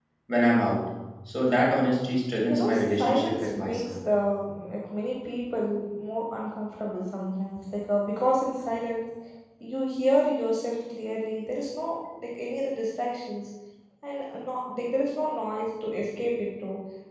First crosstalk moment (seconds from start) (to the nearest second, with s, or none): 2 s